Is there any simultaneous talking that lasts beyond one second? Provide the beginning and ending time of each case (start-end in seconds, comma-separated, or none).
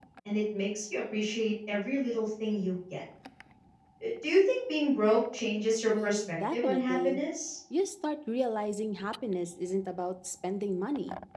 5.9-7.2